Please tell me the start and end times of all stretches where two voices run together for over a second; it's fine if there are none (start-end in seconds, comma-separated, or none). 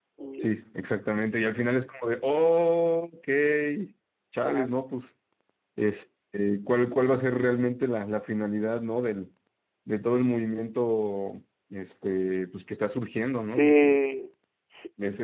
none